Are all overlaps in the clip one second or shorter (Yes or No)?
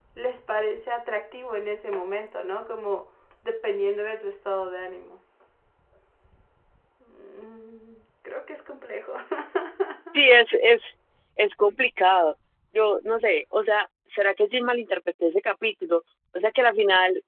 Yes